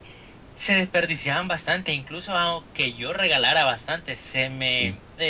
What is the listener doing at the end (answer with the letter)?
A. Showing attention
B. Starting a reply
A